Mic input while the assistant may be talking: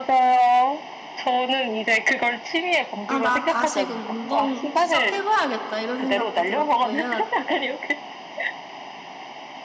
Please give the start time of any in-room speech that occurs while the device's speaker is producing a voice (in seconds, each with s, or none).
3.0 s